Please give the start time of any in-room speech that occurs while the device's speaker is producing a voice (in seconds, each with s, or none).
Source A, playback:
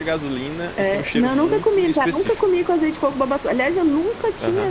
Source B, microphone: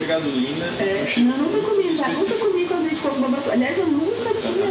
none